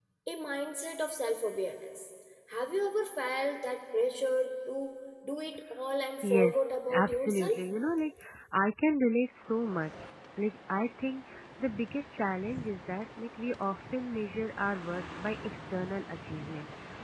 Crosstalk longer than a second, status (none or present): present